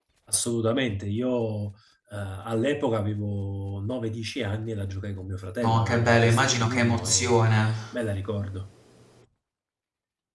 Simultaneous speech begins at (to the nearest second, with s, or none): 6 s